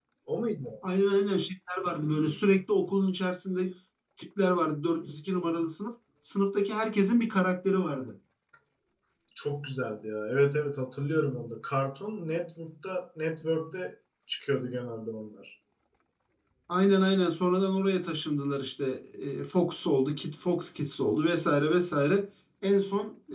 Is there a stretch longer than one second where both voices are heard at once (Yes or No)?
No